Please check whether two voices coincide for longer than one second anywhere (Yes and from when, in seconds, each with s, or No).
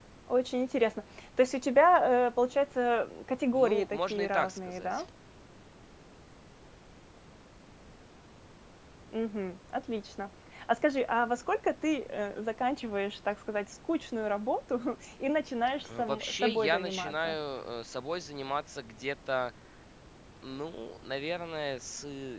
Yes, from 3.5 s